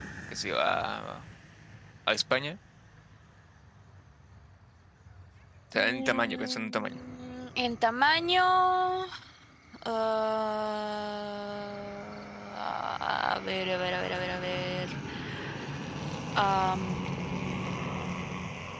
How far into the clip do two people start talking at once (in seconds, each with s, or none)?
5.7 s